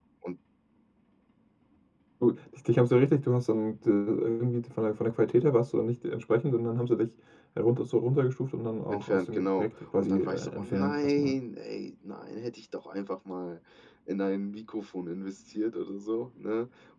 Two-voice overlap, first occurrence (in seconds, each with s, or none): 8.9 s